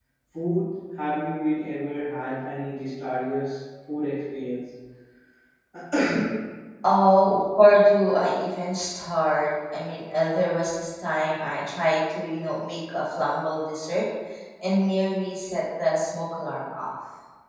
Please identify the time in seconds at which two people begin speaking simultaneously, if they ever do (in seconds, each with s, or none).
none